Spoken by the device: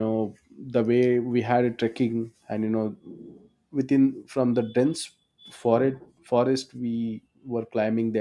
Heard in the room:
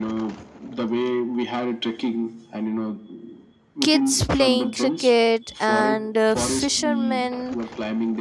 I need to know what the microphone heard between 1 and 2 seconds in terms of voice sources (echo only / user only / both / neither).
echo only